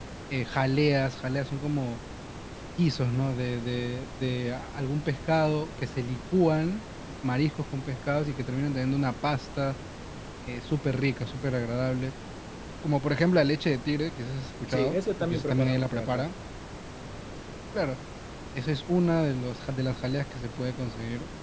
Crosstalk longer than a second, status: present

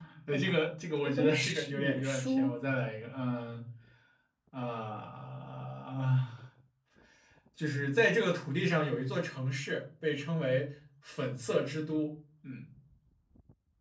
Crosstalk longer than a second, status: present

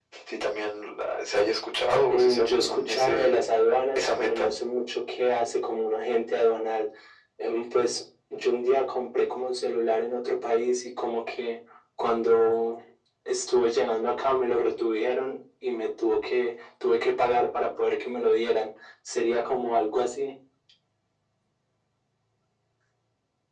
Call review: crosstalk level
present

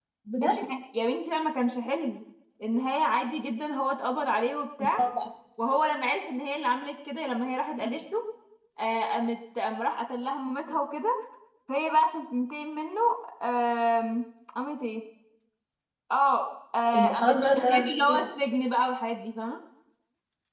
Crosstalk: present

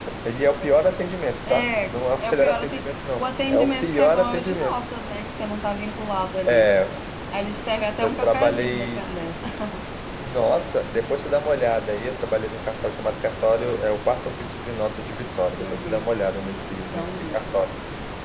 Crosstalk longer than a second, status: present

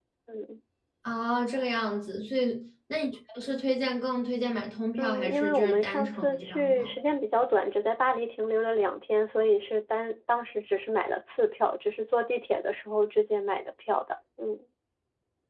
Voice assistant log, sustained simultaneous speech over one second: present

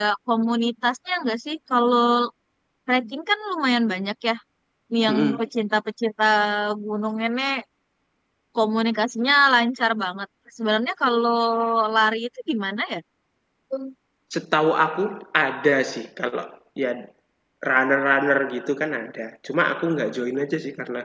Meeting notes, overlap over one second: none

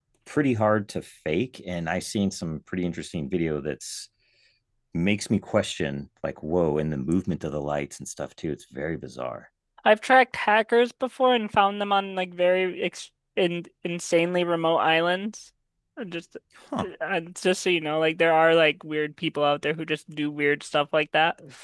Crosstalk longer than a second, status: none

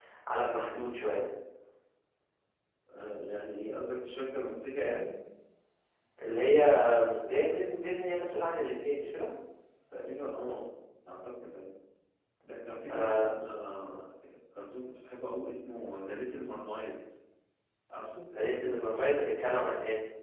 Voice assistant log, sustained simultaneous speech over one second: none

